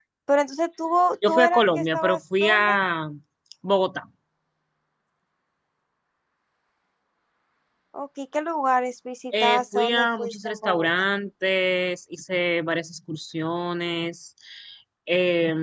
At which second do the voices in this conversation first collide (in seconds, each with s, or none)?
1.3 s